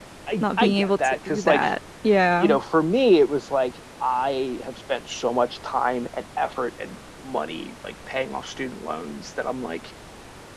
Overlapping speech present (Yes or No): Yes